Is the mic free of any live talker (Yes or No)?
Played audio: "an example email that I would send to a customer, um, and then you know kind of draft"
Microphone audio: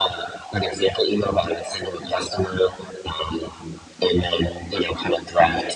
No